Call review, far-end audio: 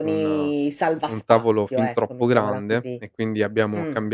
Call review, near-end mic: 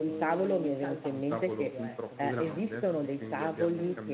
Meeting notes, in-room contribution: present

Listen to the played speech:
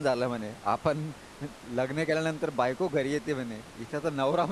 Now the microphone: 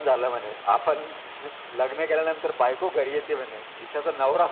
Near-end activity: none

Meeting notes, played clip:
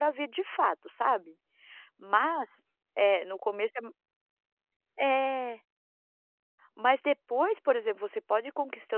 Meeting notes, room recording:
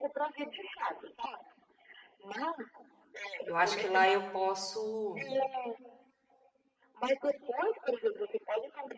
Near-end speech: present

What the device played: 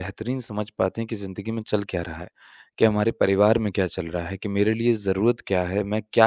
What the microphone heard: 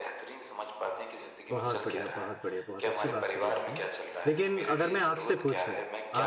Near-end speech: present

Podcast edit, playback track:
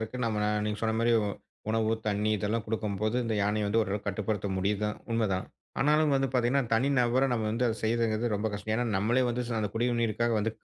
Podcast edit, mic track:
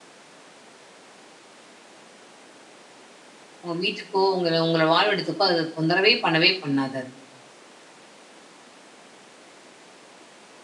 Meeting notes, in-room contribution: present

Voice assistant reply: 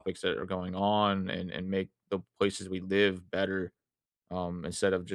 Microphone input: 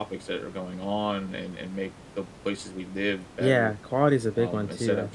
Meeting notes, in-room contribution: present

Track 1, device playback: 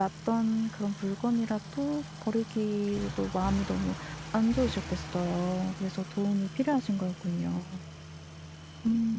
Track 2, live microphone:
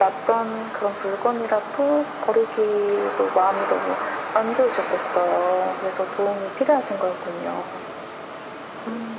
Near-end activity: none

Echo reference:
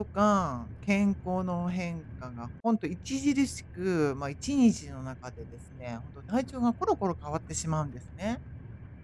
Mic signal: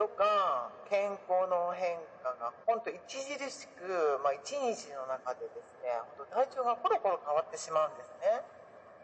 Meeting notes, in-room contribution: none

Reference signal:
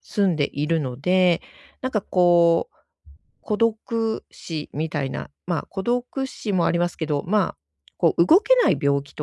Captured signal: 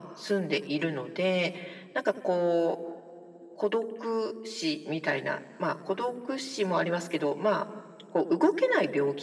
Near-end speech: none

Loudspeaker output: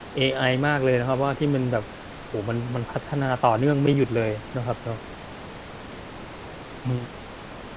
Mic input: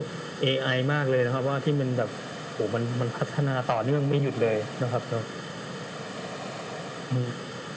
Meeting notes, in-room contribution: none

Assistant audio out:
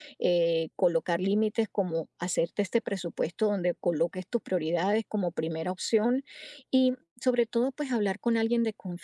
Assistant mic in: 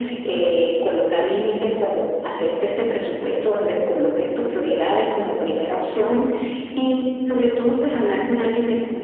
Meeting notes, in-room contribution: none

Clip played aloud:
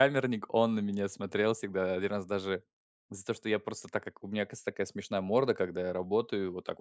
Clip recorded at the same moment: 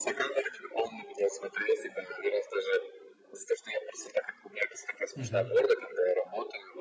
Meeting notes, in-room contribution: present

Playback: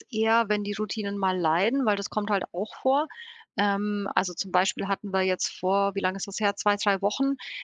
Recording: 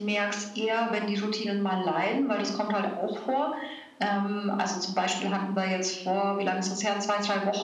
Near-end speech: none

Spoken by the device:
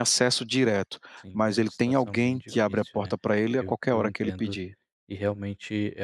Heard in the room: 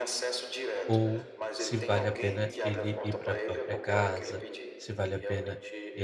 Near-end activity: present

